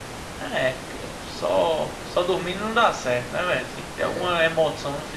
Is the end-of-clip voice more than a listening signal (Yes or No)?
No